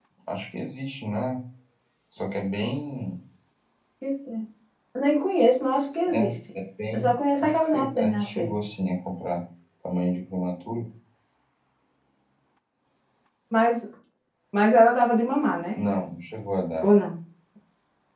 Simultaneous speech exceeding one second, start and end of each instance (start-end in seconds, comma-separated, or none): 6.9-8.5